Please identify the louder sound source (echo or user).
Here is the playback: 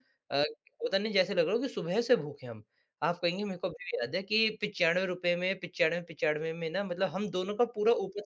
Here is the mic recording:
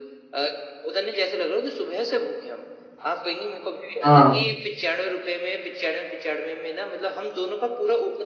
user